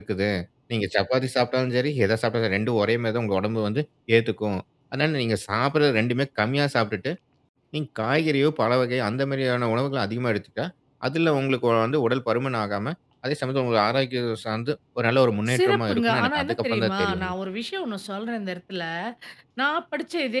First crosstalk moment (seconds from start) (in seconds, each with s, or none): 15.5 s